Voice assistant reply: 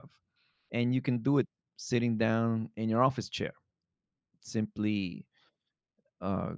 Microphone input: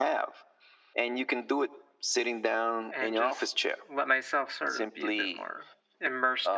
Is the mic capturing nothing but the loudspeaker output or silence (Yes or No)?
No